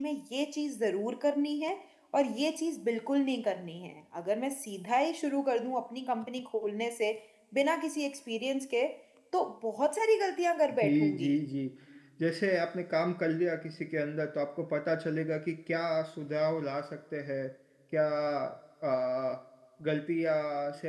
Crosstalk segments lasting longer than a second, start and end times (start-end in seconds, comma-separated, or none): none